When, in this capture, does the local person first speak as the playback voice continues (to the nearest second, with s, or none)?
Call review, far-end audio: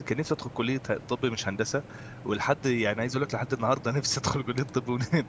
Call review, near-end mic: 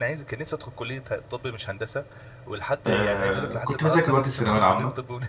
3 s